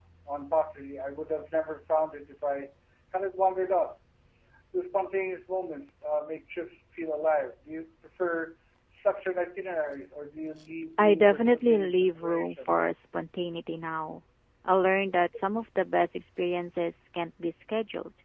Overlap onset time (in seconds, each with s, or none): 11.0 s